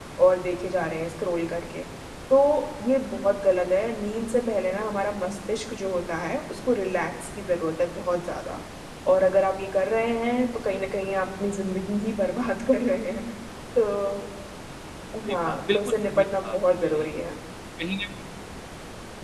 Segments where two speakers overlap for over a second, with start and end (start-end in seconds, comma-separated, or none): 15.3-17.1